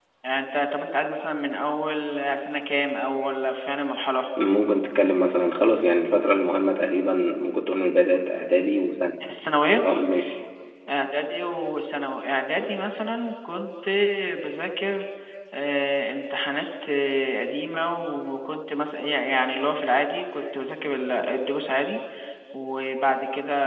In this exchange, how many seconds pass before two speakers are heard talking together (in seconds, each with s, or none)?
none